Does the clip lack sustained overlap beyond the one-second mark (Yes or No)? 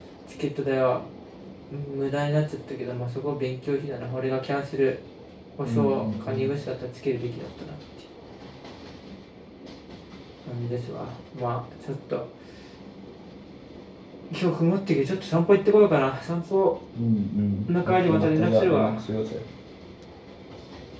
No